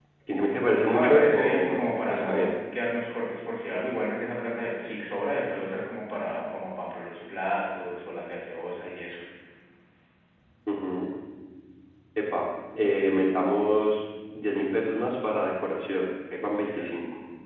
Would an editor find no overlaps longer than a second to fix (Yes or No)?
No